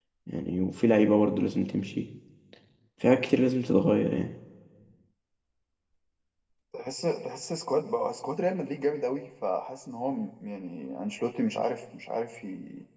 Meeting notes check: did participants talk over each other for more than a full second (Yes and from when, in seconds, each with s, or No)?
No